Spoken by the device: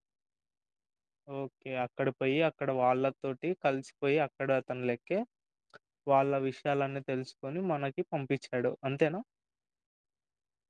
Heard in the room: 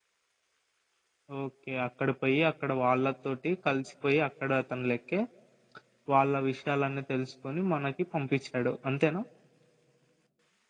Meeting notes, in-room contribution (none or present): none